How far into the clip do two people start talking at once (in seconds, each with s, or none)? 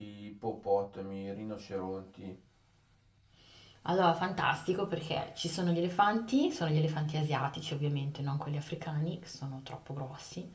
none